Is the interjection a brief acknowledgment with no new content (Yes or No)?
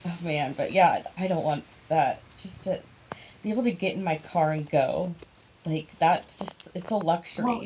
No